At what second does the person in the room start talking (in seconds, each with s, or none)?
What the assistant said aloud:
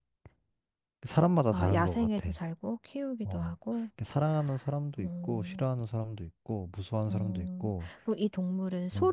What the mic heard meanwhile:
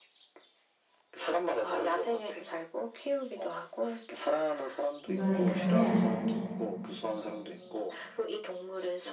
5.0 s